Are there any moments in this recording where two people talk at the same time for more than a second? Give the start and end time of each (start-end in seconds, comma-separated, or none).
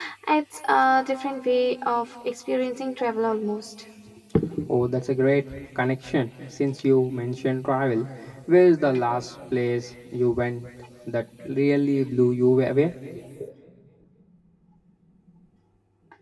none